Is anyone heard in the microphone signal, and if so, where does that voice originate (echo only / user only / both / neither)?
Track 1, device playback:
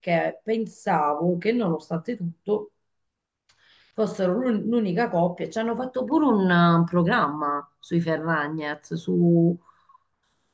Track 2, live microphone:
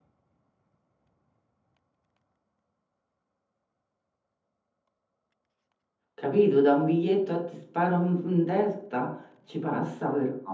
user only